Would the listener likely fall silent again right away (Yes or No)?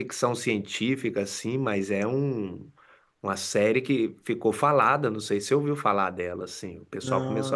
Yes